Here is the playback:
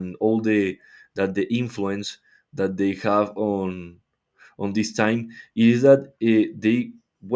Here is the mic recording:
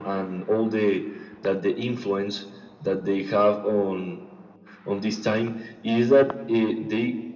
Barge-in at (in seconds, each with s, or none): none